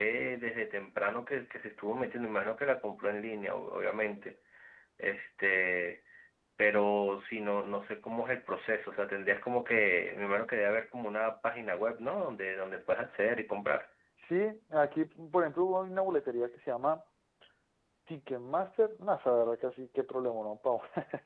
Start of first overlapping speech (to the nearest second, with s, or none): none